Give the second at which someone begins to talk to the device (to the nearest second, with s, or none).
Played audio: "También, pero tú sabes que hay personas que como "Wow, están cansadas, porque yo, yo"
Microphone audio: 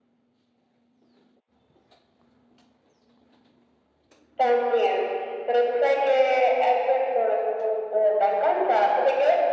none